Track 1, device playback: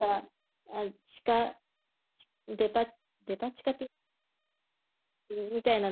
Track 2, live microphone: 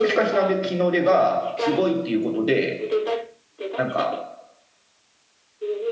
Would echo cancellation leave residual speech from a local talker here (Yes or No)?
Yes